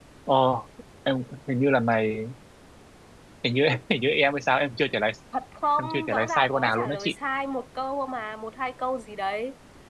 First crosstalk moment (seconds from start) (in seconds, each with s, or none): 5.8 s